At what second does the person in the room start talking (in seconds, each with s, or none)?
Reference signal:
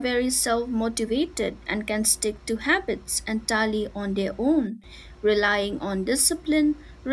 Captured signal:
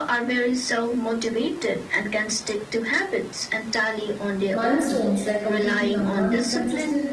4.5 s